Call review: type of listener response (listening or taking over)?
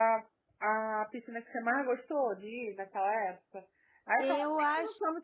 listening